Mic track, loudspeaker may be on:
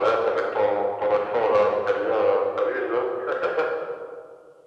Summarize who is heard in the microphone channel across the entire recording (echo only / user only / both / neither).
echo only